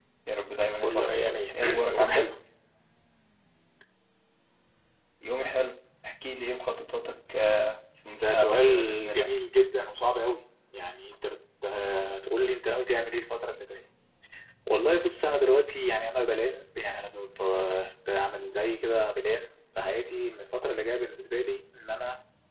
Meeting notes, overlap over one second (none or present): present